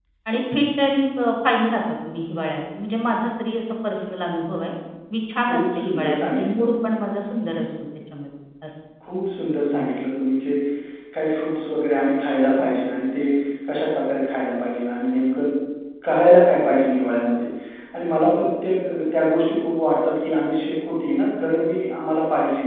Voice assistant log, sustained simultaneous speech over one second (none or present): present